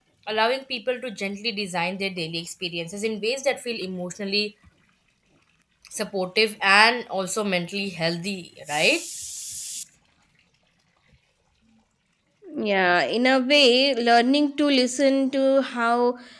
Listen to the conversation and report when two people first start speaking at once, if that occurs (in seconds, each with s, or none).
none